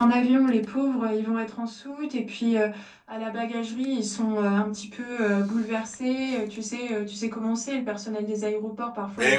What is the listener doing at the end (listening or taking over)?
taking over